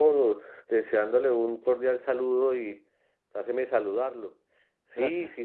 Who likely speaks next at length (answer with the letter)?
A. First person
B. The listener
A